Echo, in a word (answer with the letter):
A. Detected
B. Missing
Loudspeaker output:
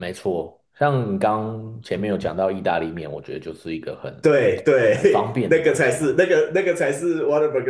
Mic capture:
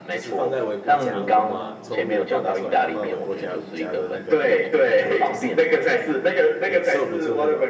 A